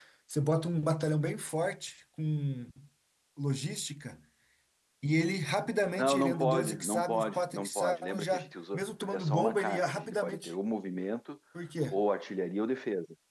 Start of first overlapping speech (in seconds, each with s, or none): 6.0 s